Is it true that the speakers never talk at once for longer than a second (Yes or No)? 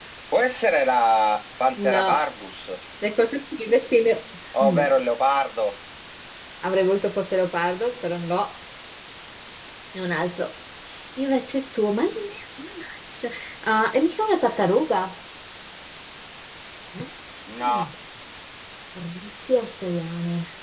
Yes